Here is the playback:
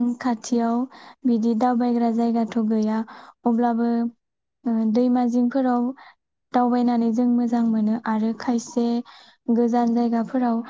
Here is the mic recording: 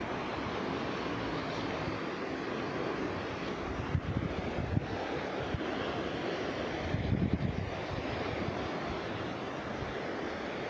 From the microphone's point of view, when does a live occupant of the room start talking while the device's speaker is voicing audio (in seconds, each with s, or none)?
none